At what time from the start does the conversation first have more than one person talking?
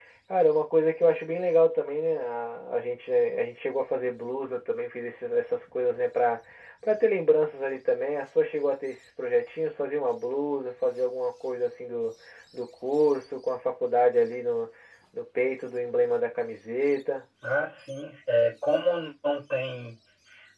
none

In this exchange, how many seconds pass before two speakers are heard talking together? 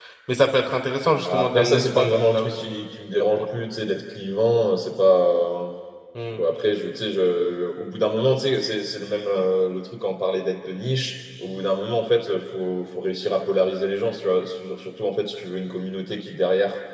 1.0 s

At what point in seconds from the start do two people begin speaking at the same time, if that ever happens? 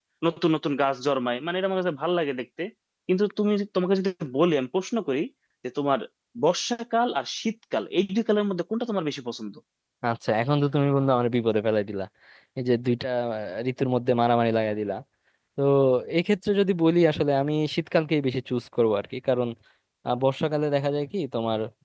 none

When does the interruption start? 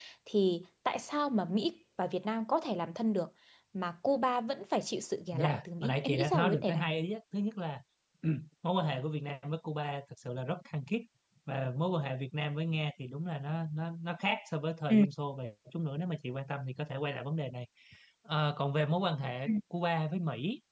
5.3 s

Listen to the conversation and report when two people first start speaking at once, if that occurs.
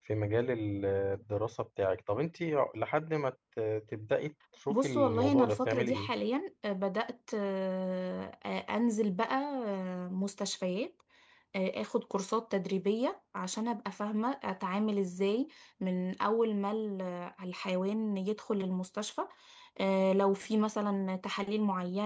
4.7 s

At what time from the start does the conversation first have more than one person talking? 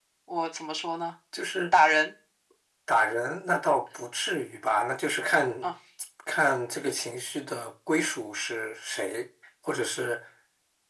none

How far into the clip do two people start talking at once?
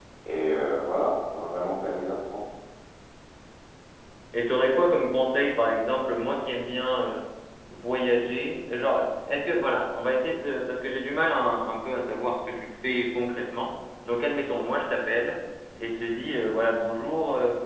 none

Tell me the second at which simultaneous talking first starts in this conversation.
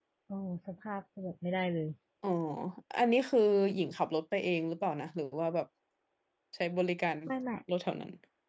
none

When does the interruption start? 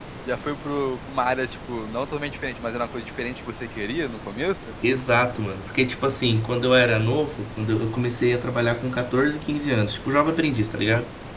none

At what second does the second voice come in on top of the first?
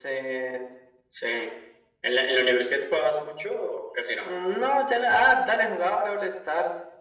none

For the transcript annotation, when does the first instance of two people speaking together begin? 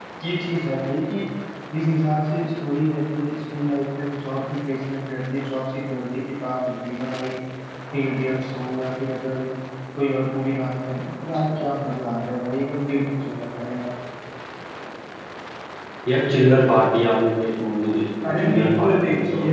18.2 s

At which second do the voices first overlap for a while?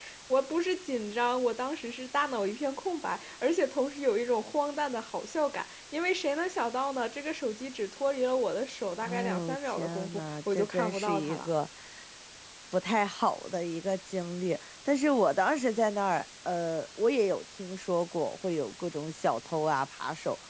9.0 s

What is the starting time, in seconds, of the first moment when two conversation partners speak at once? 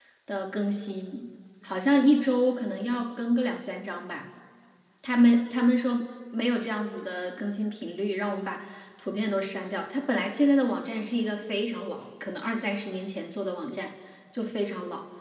none

